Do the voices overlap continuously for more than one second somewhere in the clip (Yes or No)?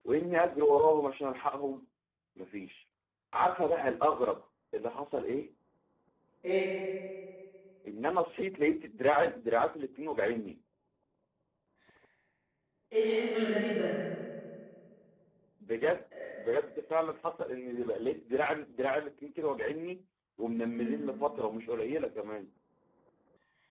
No